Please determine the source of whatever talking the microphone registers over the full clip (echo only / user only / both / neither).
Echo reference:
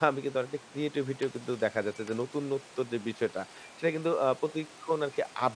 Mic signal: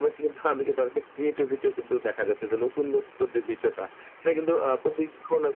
echo only